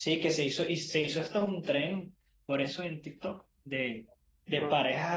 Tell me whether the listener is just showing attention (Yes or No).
Yes